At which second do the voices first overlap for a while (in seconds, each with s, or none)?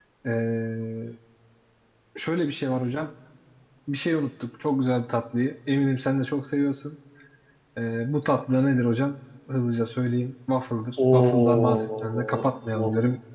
11.0 s